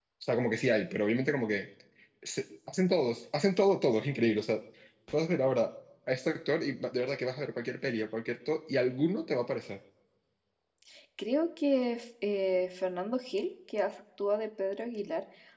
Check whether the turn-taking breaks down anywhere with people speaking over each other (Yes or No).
No